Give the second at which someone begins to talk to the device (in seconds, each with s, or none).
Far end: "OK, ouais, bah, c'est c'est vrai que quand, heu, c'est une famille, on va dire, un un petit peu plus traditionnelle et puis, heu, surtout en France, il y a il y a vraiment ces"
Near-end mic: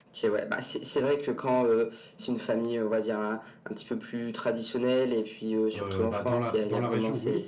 5.7 s